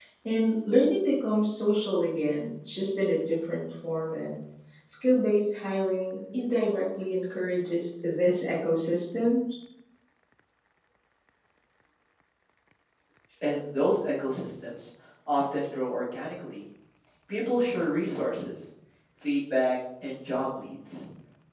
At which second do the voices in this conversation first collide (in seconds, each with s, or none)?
none